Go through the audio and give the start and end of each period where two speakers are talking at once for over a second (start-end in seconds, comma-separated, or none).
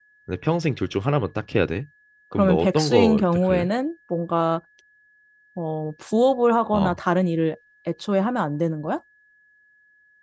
2.3-3.7